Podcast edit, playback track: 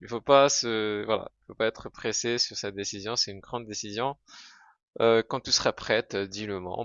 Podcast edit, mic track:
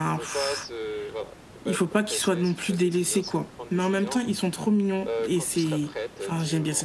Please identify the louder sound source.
user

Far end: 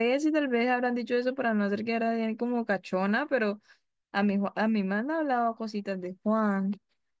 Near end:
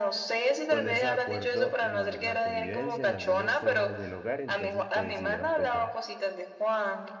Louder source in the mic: echo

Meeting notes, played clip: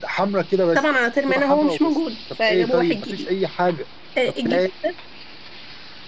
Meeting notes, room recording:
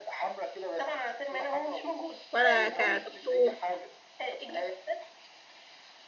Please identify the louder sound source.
user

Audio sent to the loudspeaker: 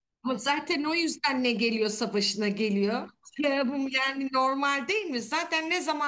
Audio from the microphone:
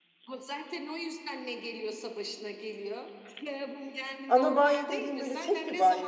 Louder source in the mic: user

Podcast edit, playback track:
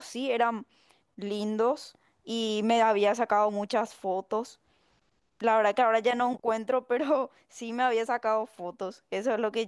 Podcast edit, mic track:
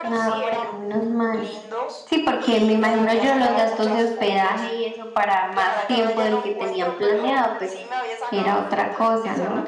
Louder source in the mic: user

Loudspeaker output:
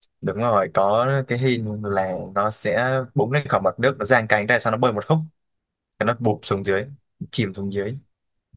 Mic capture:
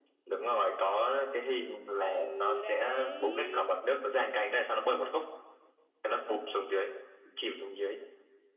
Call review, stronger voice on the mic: echo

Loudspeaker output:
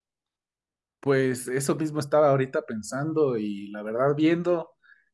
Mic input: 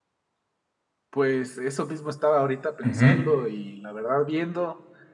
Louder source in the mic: user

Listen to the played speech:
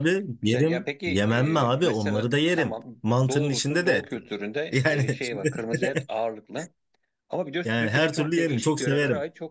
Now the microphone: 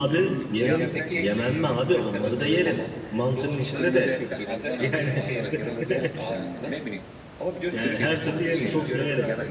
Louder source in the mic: echo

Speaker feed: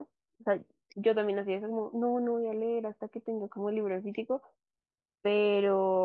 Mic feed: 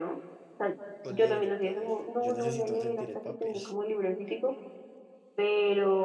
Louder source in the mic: echo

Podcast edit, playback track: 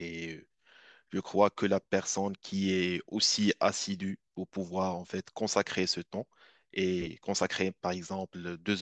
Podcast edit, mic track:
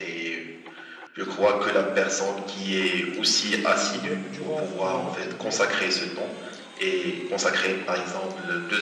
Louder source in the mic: echo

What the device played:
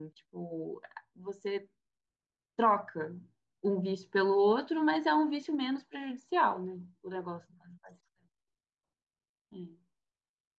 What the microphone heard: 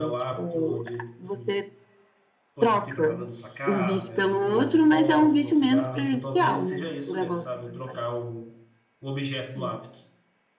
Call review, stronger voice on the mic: echo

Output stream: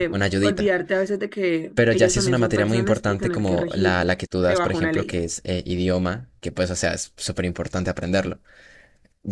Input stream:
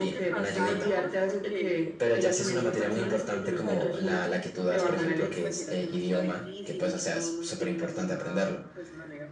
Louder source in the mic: echo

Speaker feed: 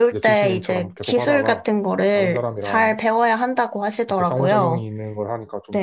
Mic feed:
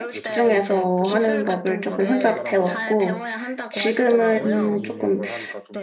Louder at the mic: user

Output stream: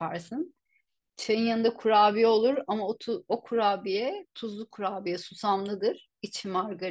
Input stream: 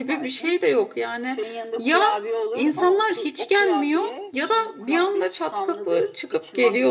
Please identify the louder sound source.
user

